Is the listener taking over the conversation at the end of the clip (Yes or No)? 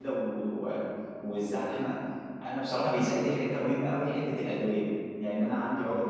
No